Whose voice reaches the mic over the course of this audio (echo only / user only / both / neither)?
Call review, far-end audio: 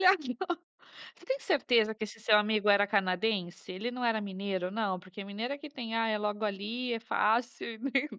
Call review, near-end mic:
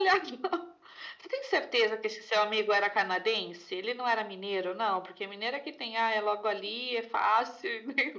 echo only